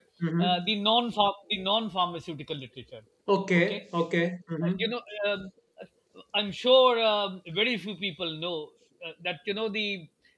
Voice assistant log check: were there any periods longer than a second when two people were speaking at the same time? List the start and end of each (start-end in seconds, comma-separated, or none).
none